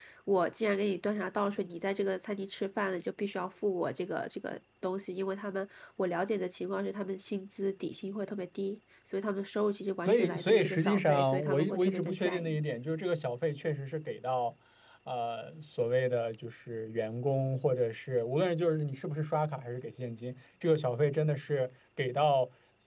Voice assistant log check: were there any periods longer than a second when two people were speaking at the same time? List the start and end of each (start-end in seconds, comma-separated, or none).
10.1-12.6